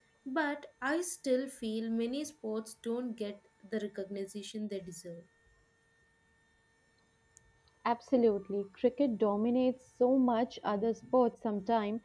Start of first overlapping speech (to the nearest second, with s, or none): none